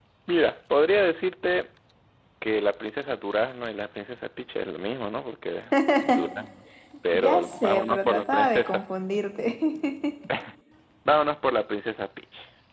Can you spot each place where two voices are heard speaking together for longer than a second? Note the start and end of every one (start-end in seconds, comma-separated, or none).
7.1-8.8